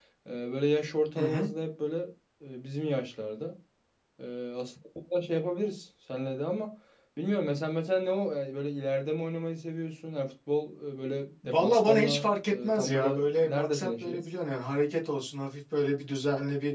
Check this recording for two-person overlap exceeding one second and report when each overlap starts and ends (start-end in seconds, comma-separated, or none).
11.4-14.2